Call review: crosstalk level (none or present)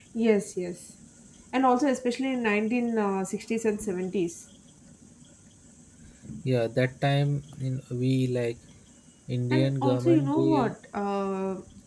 present